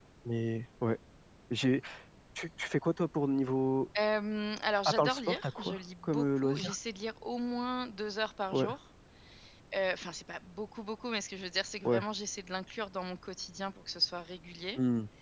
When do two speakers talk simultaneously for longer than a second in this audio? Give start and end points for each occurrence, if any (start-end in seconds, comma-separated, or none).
4.8-6.7